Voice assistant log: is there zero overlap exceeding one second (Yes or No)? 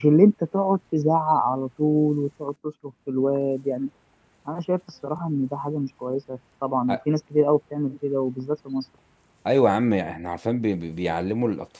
Yes